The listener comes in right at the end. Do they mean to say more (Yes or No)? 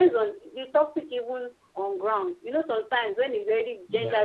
No